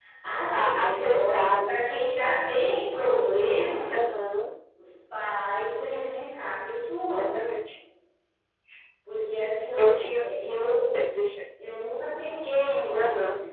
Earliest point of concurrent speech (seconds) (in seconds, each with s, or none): 0.6 s